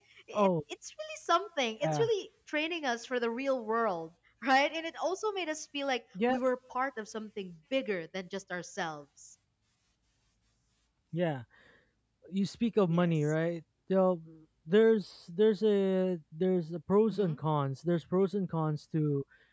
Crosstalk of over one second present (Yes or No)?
No